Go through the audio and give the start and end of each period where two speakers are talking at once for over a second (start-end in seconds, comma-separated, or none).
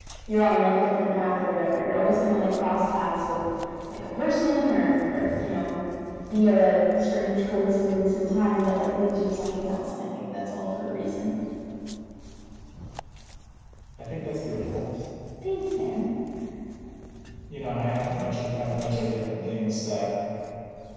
none